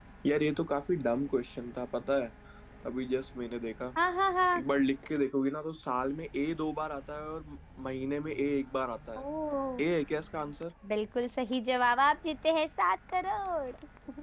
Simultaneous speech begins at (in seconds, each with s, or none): none